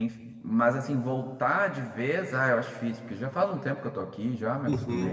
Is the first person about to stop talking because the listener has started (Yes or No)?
Yes